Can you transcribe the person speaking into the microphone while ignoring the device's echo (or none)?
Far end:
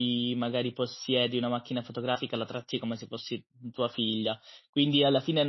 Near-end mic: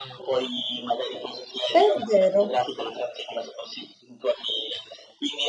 È vero.